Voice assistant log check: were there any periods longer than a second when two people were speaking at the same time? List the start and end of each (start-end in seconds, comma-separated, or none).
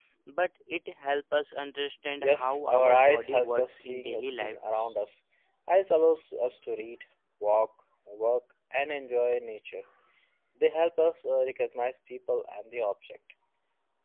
2.2-4.6